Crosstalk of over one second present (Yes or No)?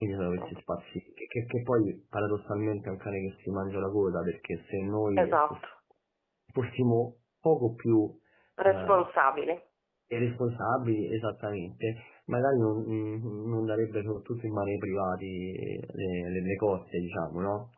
No